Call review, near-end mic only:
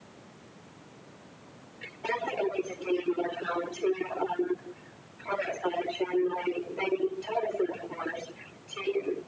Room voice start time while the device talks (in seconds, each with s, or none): none